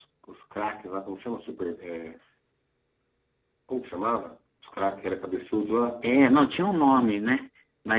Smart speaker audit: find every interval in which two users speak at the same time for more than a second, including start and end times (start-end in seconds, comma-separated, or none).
none